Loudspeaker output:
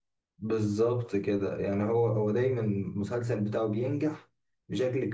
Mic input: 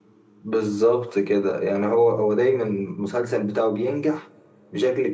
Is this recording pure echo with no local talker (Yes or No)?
Yes